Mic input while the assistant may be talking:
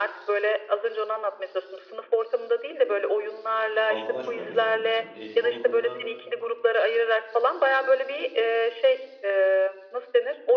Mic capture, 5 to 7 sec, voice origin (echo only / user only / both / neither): both